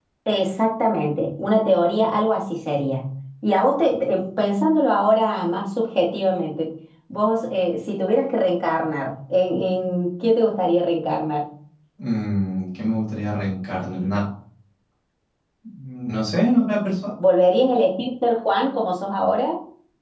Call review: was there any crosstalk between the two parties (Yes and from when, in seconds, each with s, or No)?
No